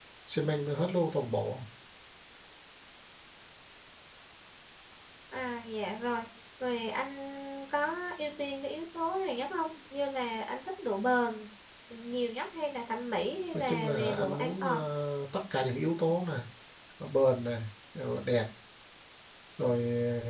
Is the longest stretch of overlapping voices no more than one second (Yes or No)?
No